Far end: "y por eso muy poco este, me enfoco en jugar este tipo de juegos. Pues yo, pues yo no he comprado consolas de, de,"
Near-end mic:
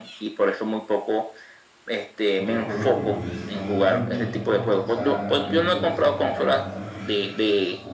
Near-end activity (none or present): present